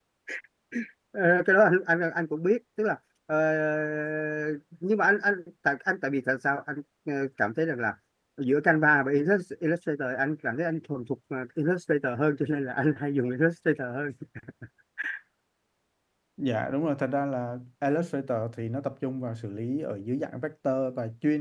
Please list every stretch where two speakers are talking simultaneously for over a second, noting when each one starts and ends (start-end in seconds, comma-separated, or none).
none